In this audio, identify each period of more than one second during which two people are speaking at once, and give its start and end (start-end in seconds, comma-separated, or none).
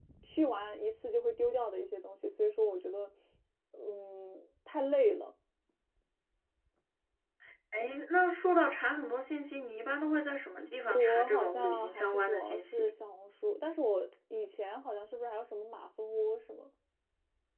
10.9-12.9